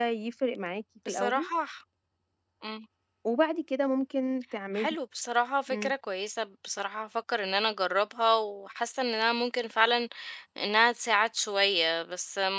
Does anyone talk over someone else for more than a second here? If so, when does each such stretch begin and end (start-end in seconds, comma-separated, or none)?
none